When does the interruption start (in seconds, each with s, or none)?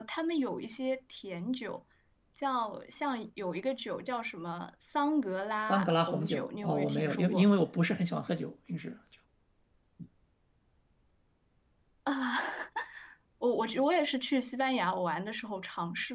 5.6 s